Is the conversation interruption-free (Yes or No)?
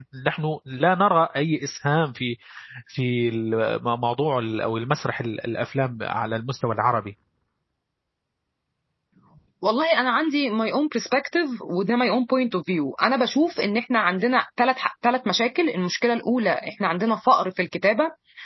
Yes